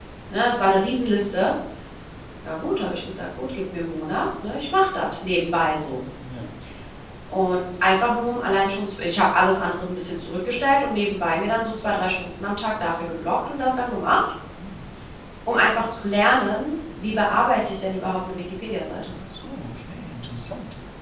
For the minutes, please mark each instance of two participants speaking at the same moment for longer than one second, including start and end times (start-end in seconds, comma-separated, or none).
none